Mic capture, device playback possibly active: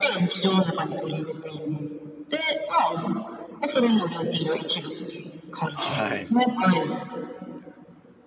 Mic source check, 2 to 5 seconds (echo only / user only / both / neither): echo only